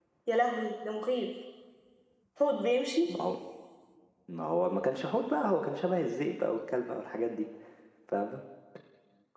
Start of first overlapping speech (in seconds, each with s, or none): none